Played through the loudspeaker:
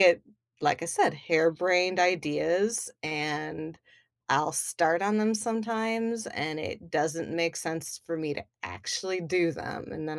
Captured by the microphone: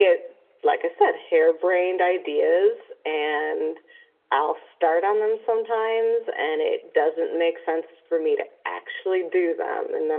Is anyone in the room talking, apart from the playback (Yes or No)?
No